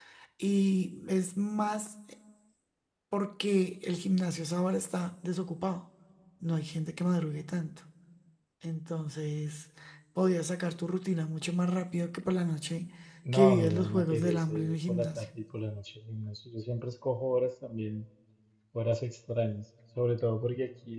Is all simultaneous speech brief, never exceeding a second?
No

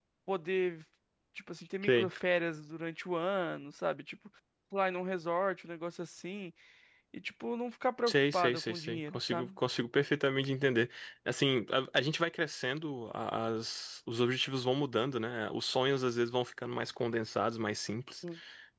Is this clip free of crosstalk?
No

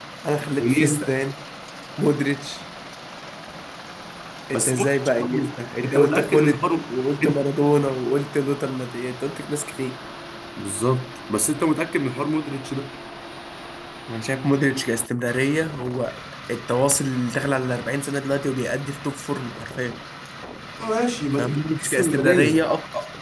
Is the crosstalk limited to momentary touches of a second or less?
No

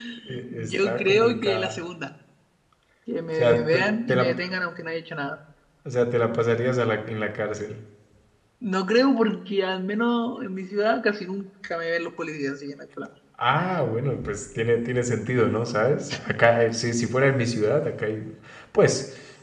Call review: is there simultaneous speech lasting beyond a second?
Yes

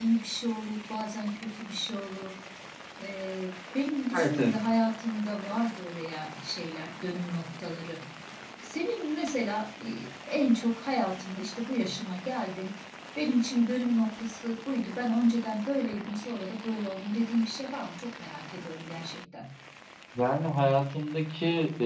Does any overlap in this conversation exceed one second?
No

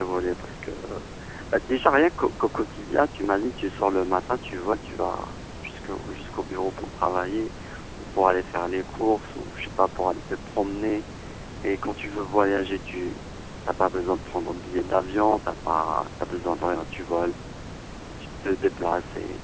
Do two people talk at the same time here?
No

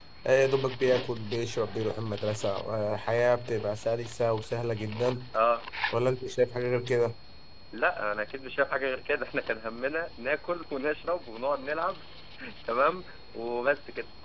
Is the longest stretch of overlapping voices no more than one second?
Yes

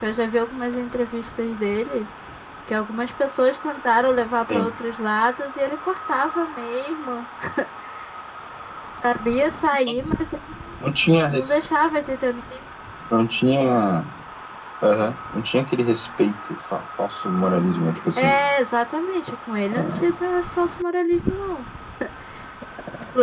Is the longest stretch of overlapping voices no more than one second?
Yes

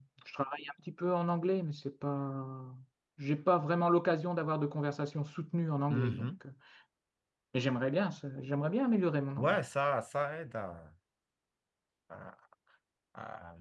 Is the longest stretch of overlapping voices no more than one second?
Yes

